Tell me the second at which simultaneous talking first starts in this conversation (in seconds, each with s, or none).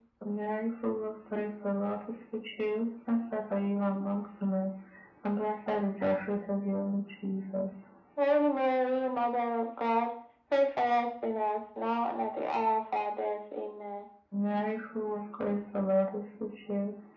none